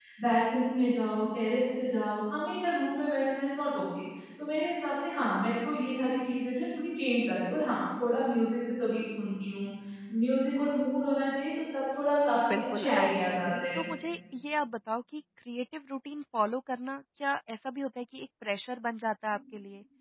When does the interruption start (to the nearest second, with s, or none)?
12 s